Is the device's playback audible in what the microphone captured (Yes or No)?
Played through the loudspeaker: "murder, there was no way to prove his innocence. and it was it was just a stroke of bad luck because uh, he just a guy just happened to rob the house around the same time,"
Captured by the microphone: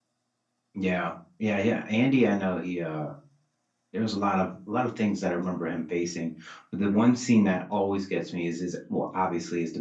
No